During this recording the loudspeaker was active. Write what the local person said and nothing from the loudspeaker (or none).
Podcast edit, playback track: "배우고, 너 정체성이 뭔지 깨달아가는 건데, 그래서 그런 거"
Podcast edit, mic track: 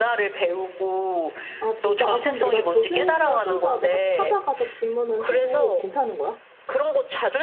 아, 아, 진짜? 아, 그럼 내가 교수님을 혼자 내가 찾아가서 질문을 해도 괜찮은 거야?